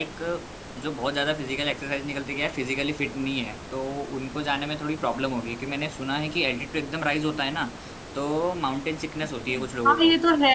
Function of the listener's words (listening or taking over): taking over